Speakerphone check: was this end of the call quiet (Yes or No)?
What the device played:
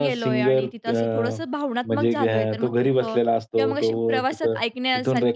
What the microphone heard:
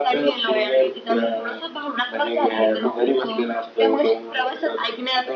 Yes